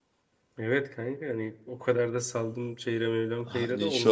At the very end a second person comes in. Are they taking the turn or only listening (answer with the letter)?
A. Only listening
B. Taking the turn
B